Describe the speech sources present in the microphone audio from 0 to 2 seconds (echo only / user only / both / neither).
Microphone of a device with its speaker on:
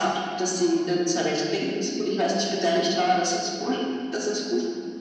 echo only